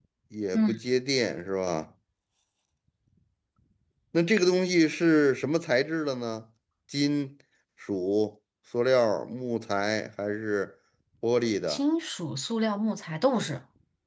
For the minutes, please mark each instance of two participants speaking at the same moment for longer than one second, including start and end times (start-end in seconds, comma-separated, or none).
none